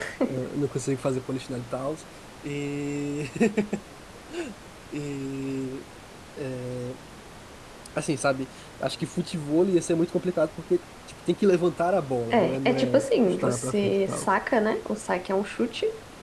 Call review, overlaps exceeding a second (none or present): present